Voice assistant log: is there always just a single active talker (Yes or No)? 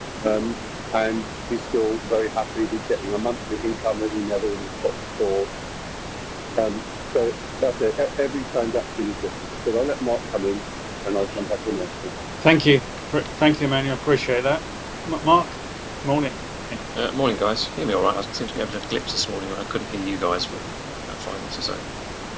Yes